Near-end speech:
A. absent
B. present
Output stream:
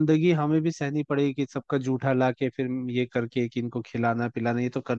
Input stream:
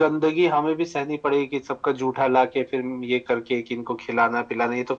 A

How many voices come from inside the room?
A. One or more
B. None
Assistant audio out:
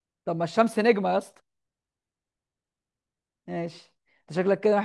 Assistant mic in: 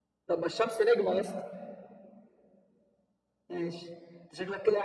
B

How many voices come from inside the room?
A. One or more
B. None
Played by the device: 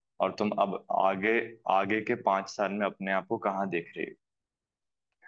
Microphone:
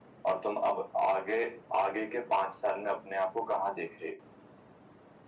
B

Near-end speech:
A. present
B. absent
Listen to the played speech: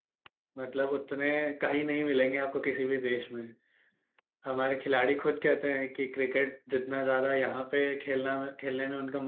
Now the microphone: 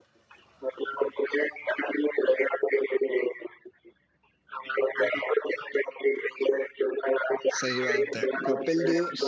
A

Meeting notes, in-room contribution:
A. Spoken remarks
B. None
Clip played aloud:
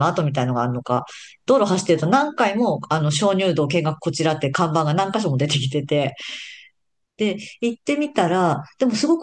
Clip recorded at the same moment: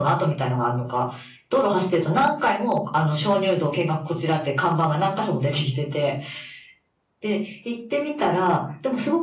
B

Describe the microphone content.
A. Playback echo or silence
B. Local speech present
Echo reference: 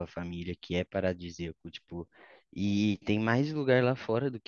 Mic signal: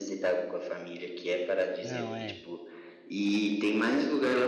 B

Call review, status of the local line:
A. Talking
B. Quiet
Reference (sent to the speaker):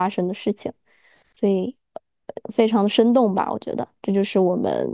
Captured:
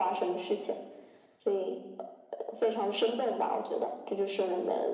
B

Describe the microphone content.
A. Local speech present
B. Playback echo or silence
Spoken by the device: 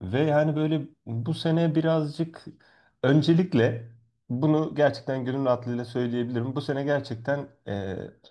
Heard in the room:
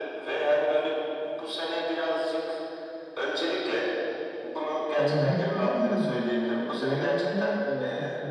A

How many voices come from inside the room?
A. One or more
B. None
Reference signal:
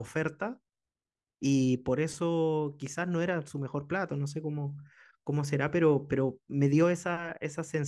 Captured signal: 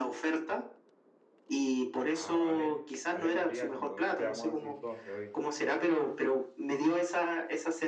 A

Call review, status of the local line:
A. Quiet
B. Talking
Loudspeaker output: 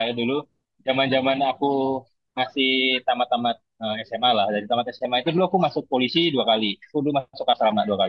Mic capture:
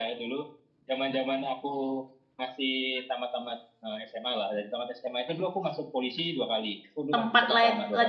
B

